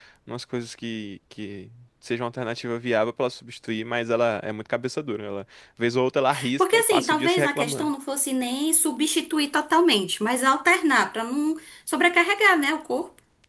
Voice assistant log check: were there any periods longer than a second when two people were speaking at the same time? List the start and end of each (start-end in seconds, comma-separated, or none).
6.6-7.9